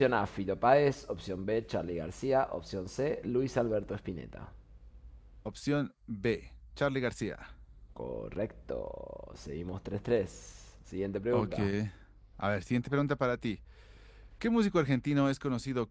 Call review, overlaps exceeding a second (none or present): none